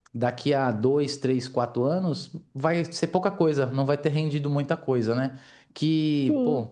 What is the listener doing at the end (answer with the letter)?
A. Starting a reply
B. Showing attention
B